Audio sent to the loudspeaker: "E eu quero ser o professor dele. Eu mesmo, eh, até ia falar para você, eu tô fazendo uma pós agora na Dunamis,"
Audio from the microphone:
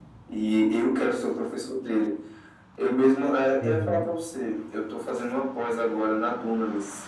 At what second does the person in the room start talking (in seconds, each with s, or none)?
3.6 s